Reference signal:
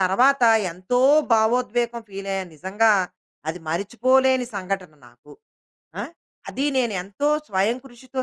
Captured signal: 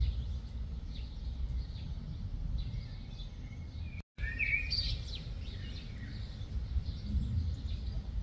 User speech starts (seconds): none

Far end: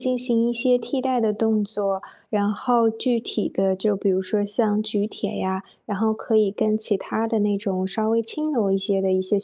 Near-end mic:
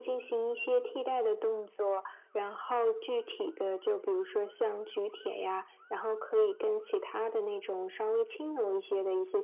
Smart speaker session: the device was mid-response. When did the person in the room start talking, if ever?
none

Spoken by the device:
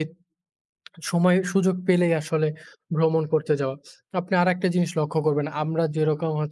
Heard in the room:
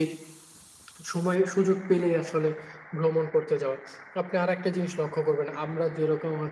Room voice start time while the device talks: none

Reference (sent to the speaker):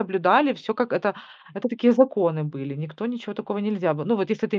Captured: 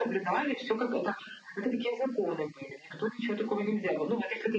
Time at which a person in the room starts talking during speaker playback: none

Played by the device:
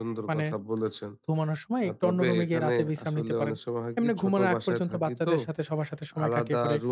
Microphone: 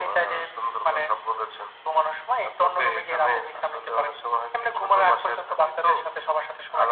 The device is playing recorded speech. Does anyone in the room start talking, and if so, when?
none

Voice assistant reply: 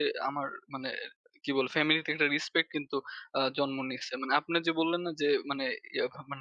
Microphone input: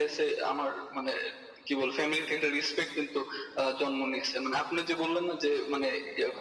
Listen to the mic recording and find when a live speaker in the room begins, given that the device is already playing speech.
none

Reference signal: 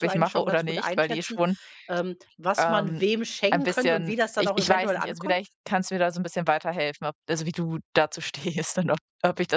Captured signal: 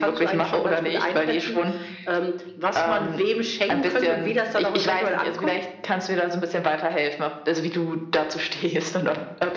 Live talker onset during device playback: none

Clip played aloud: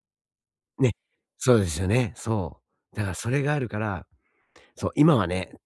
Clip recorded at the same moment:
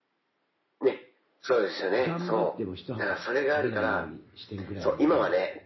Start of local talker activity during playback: 1.9 s

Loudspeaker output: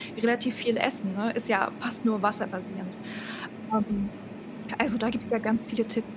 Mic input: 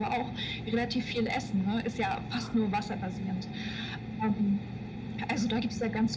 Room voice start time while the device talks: none

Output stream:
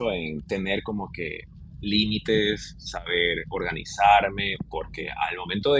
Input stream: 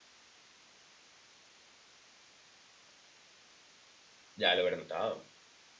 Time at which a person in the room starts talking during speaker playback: 4.4 s

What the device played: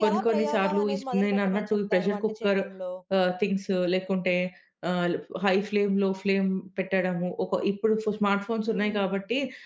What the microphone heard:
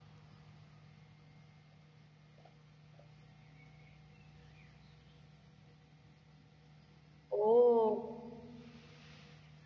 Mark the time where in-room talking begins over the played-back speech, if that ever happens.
7.4 s

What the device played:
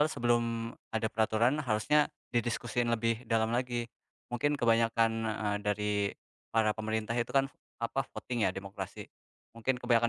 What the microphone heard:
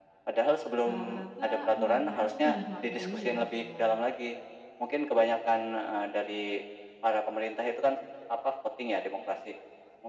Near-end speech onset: 0.8 s

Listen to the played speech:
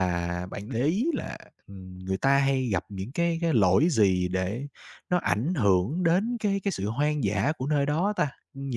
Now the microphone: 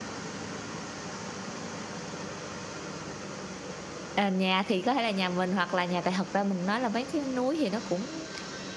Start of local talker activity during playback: 4.1 s

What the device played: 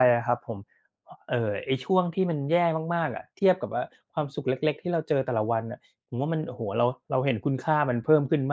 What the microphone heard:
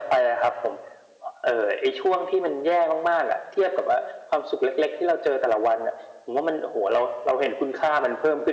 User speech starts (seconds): none

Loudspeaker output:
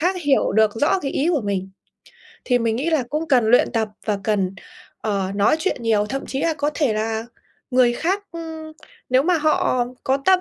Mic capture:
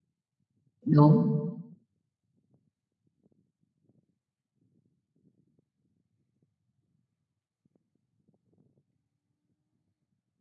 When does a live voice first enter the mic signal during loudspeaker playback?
0.8 s

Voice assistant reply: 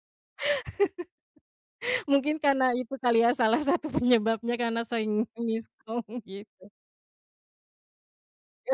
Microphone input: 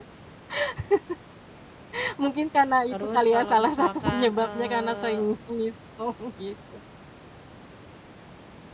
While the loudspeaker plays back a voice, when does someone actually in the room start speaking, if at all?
2.9 s

